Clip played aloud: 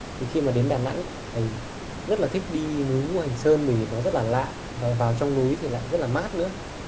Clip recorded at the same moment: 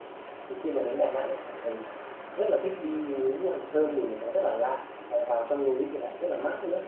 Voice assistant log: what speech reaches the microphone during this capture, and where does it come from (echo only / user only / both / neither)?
both